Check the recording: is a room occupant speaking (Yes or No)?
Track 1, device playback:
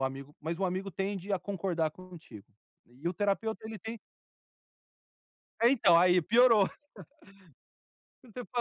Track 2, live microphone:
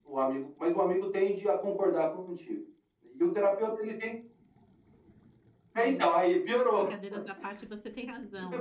Yes